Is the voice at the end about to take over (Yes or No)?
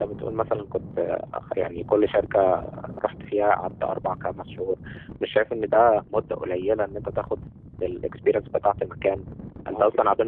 No